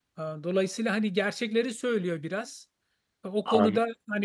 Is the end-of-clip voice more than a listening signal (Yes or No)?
No